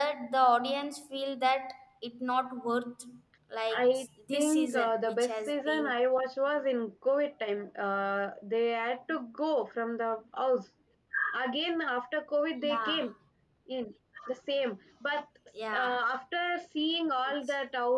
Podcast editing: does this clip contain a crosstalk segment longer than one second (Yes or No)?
Yes